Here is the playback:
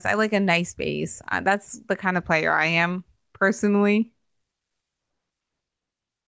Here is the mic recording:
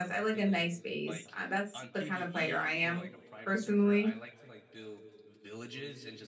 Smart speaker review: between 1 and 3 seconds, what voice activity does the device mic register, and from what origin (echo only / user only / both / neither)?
both